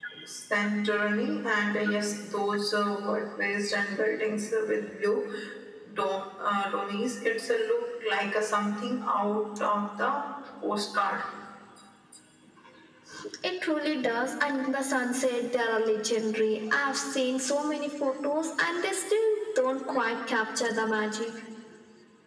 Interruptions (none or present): none